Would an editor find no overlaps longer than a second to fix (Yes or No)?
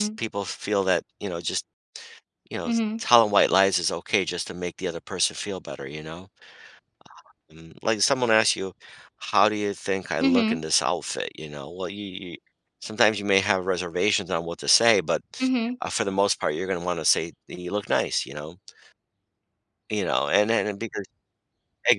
Yes